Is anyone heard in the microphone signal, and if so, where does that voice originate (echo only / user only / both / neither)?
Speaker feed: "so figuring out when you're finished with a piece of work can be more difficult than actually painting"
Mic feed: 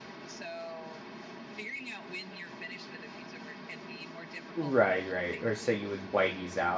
both